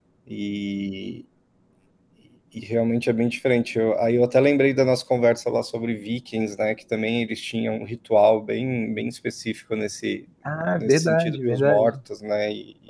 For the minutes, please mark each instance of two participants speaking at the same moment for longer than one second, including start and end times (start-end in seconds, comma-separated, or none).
10.7-11.9